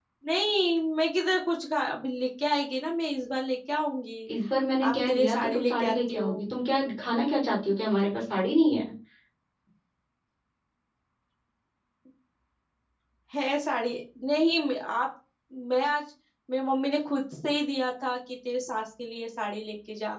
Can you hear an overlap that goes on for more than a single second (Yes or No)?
Yes